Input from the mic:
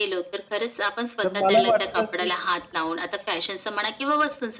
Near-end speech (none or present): present